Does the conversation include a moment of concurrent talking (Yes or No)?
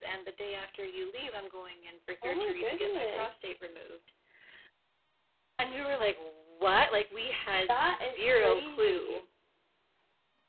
Yes